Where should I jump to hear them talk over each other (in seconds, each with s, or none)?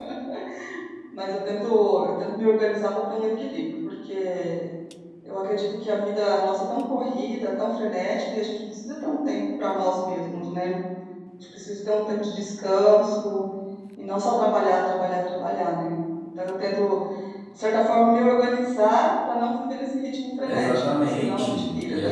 20.4 s